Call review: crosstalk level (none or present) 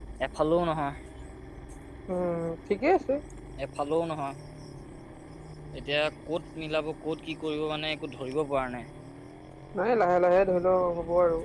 none